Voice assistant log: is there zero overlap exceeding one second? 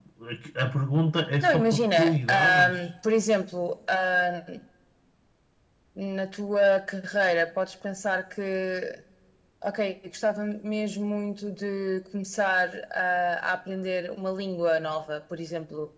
No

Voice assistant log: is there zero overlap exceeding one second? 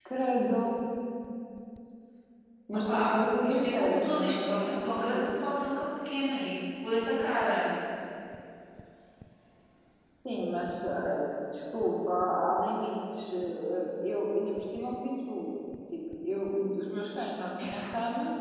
No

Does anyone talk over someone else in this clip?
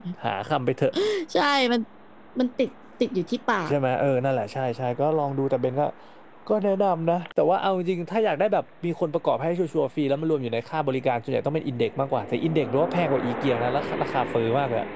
No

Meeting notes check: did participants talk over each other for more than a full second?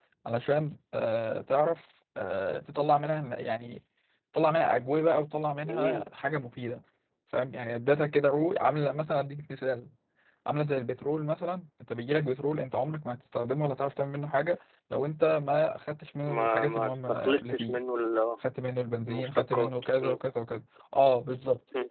Yes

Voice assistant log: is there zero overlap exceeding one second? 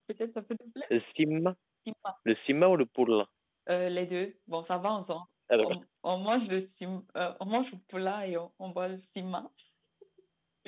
Yes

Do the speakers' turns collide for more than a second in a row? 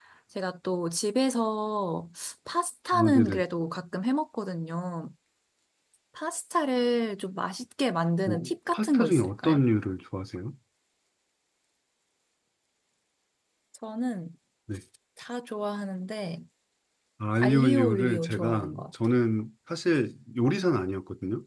Yes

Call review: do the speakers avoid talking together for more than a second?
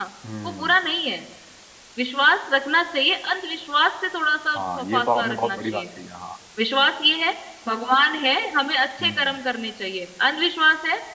No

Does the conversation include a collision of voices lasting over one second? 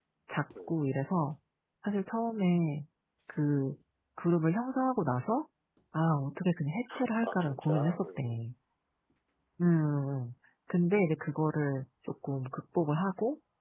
Yes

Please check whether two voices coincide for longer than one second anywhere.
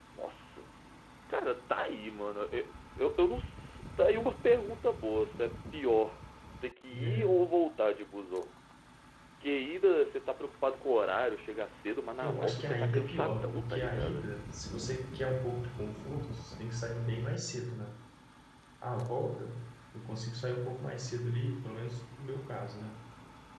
Yes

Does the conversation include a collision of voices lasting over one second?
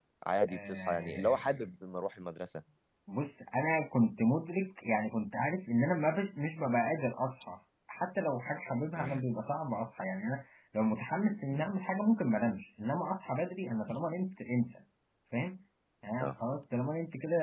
Yes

